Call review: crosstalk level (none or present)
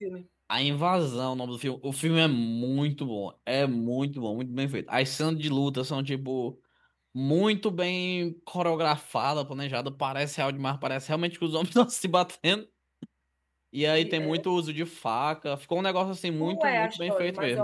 present